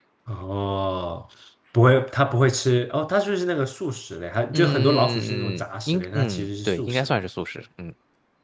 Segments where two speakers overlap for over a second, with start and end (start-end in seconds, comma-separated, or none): 4.5-7.2